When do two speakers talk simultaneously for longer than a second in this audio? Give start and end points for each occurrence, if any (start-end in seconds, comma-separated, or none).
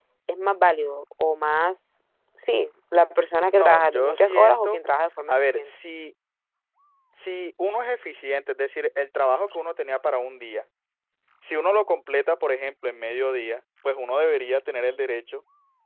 3.5-4.8